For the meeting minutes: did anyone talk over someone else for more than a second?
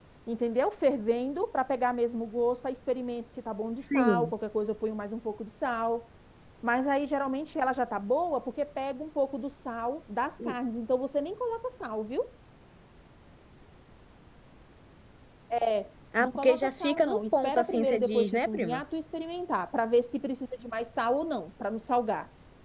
Yes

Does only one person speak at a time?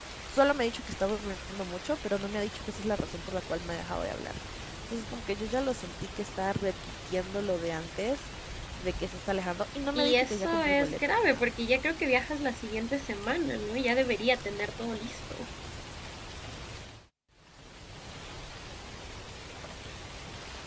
No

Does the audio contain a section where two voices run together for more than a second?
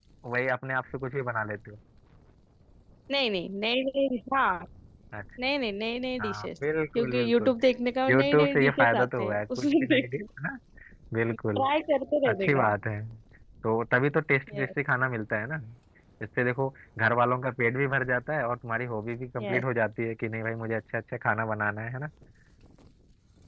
Yes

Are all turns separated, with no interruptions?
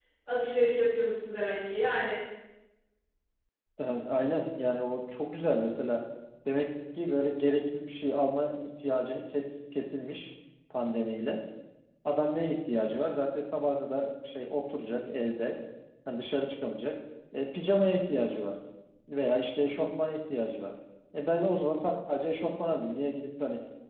Yes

